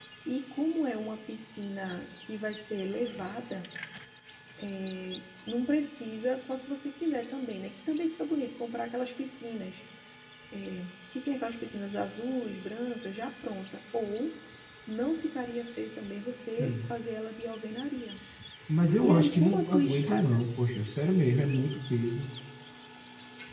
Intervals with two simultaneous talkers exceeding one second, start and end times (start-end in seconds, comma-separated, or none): 19.0-20.2